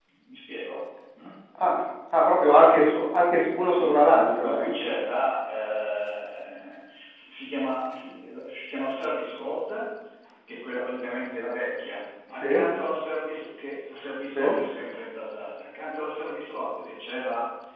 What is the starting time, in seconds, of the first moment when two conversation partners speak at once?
3.6 s

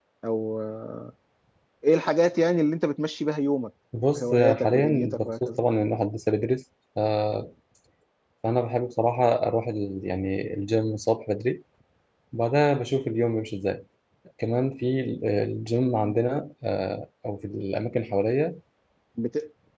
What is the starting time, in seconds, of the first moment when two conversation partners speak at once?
4.1 s

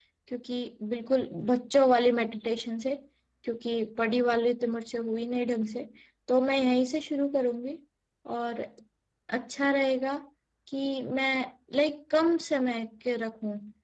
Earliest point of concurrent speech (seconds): none

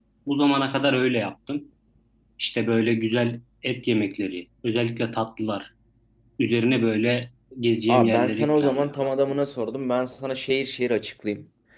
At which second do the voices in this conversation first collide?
7.9 s

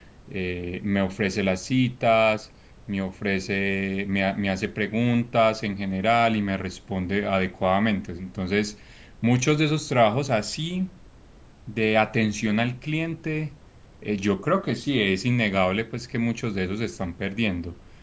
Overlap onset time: none

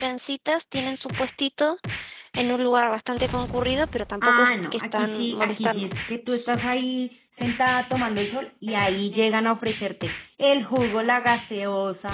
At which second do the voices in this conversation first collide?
4.2 s

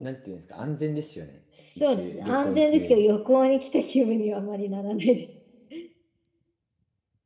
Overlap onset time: 1.8 s

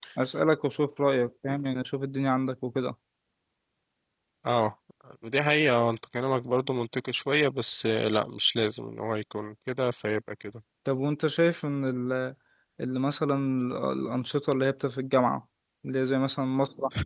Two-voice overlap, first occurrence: none

